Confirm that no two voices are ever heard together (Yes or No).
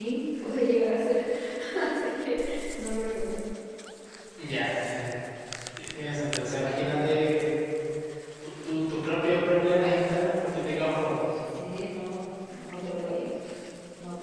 Yes